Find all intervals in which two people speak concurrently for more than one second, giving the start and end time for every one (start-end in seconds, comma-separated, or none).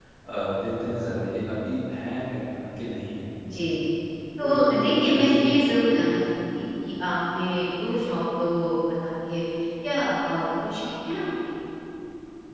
4.4-5.9